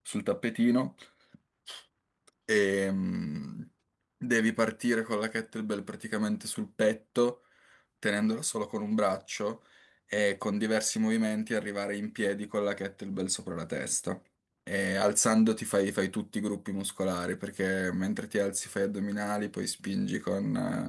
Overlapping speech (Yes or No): No